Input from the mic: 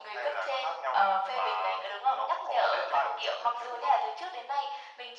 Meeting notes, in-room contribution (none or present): none